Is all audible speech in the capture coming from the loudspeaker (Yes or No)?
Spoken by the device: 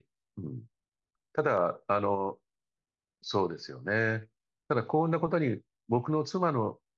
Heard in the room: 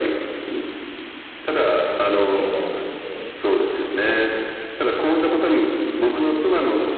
No